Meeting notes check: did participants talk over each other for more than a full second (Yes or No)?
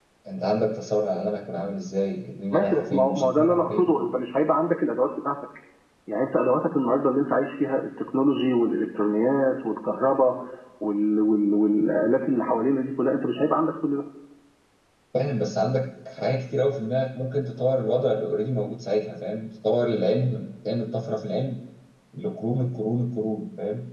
Yes